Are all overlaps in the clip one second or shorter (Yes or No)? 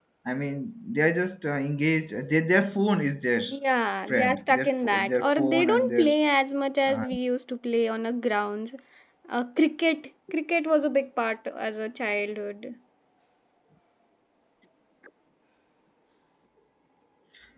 No